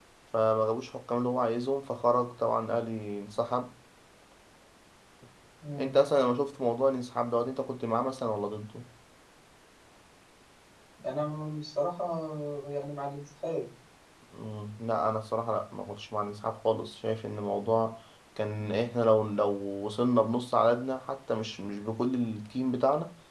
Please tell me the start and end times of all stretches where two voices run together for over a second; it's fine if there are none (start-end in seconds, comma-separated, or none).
none